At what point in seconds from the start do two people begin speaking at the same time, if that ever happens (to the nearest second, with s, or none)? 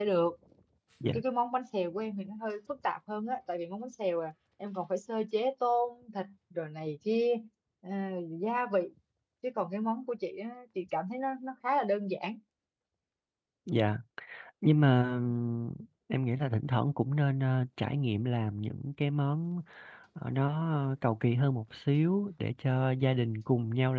none